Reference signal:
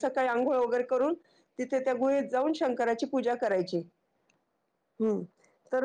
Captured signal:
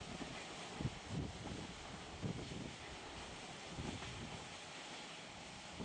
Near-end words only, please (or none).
none